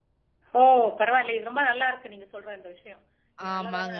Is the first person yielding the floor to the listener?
No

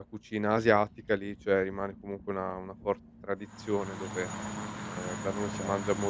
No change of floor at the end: Yes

